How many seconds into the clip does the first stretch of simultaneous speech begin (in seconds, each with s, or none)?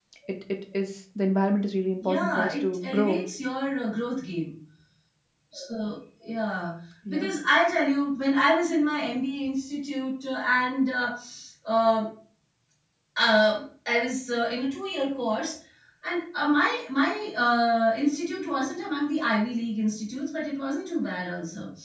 2.0 s